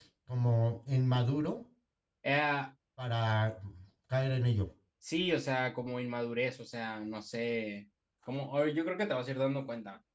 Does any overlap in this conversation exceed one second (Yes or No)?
No